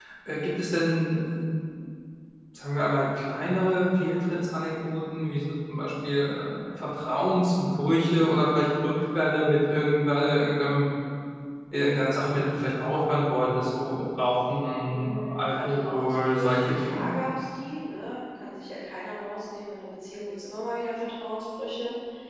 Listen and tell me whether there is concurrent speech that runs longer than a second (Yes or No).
Yes